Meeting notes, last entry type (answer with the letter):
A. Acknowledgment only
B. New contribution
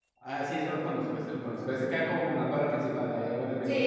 B